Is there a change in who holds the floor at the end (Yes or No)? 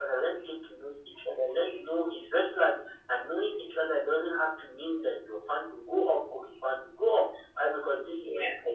No